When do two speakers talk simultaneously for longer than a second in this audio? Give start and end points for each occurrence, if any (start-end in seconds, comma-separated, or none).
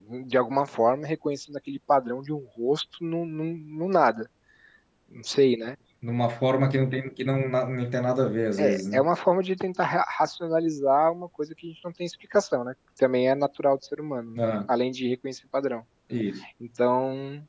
none